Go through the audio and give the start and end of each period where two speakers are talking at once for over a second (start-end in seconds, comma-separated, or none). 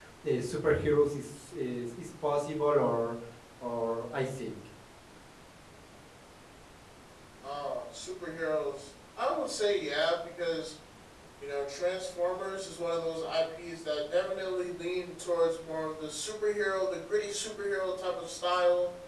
none